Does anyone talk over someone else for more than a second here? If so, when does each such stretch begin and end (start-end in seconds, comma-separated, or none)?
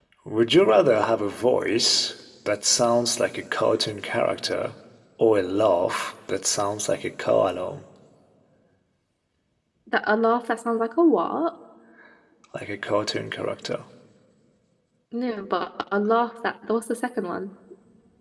none